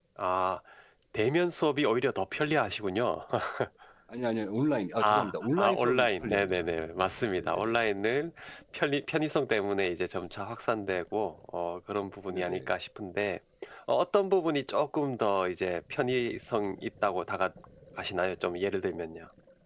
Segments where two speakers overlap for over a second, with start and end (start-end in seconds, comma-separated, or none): 5.0-6.7